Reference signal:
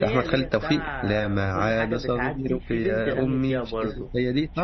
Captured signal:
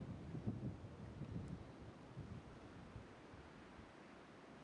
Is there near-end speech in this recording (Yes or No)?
No